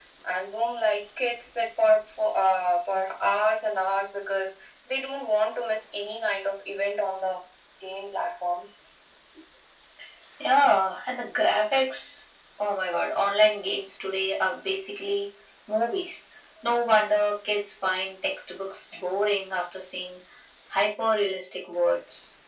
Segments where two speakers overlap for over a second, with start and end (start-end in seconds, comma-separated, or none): none